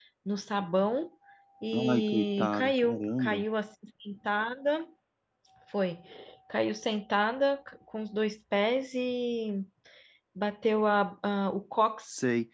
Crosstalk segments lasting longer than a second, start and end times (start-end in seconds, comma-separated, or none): 1.9-3.4